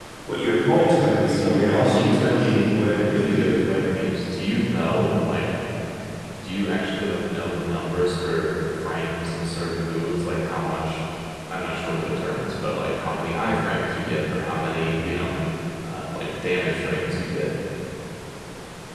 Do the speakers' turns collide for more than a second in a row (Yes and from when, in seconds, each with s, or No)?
Yes, from 1.3 s